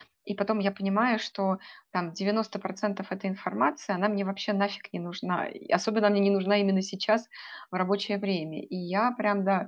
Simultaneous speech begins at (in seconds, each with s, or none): none